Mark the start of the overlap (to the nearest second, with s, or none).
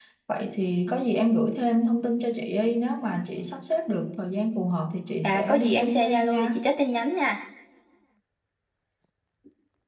5 s